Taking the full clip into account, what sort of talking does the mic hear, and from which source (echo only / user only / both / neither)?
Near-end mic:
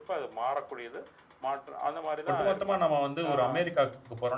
both